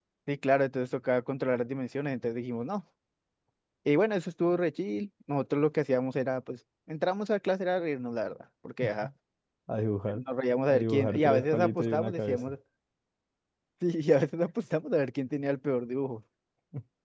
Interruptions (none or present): present